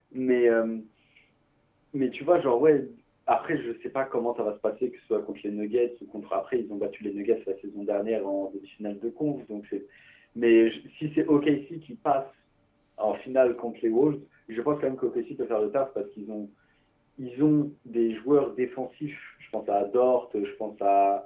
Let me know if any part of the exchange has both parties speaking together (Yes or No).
No